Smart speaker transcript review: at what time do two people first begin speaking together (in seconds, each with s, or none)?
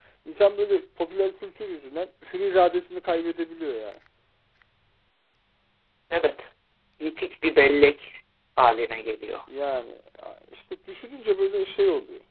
none